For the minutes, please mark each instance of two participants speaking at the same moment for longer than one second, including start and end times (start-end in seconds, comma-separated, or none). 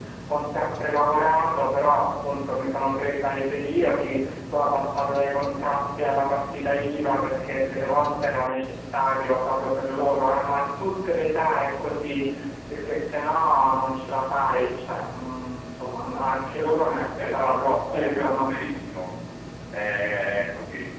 17.2-18.5